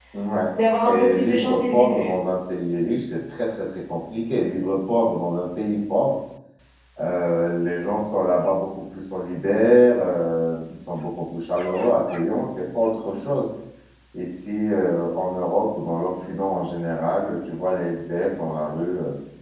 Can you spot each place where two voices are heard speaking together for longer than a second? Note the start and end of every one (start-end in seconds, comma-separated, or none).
0.8-2.1